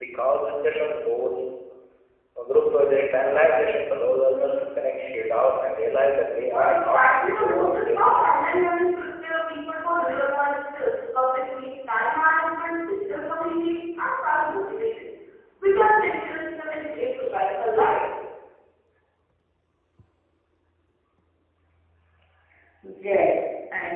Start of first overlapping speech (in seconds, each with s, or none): 6.5 s